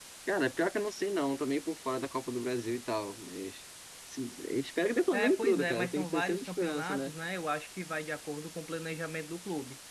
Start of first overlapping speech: 5.1 s

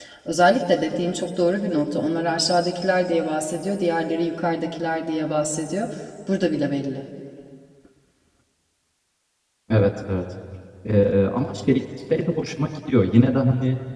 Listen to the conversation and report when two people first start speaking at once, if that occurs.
none

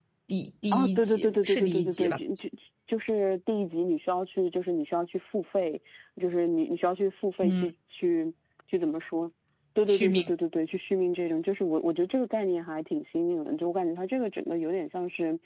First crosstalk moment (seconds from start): 0.7 s

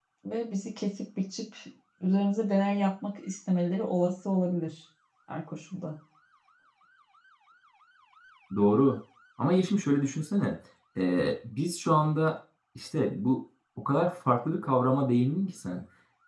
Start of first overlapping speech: none

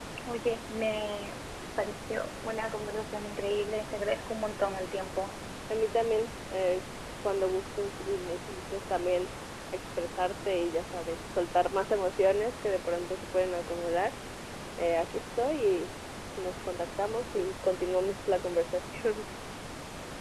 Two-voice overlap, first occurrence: none

